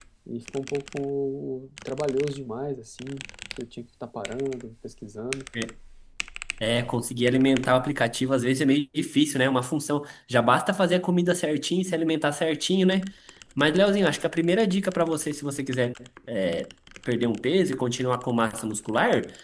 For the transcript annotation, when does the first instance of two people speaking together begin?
none

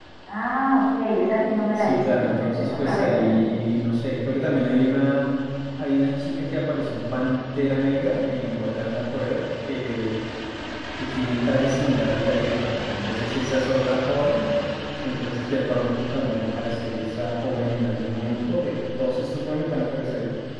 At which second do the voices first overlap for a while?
1.8 s

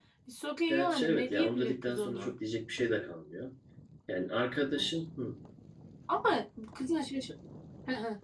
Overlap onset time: 0.7 s

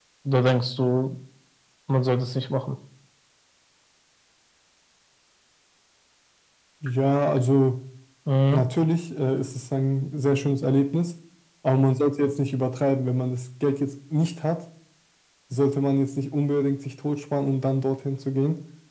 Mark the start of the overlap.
none

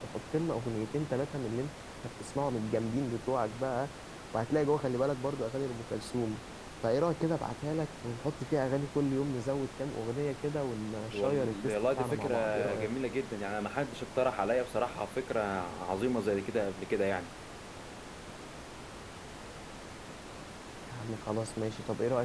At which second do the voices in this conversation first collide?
11.1 s

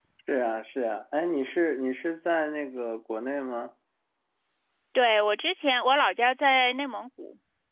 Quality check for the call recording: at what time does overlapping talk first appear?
none

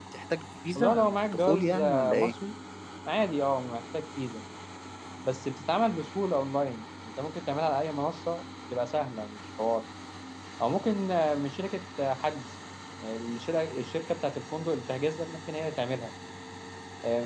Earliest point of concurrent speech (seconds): 0.8 s

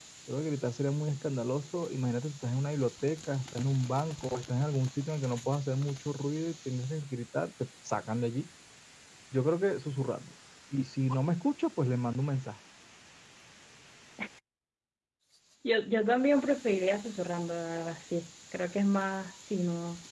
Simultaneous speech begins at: none

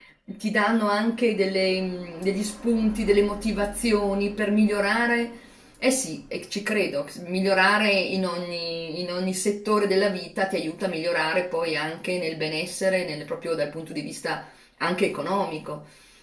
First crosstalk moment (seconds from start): none

